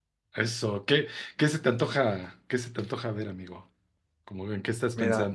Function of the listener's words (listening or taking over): taking over